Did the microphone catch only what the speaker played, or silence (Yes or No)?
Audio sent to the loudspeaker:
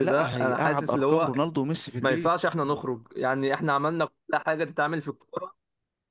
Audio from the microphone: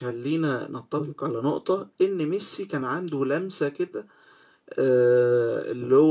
No